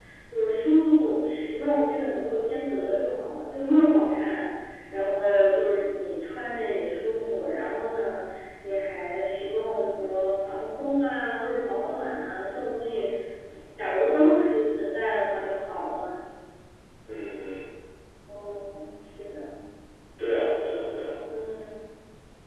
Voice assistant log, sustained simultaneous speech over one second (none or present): none